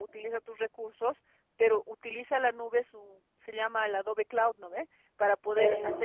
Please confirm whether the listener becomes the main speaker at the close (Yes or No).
No